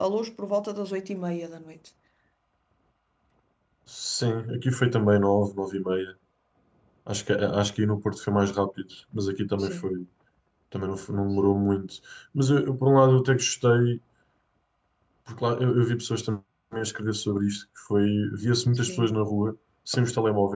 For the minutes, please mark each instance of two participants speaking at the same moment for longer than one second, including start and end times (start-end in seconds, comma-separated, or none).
none